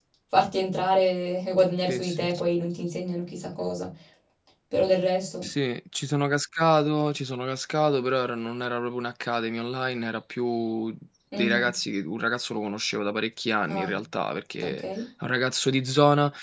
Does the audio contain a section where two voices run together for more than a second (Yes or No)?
No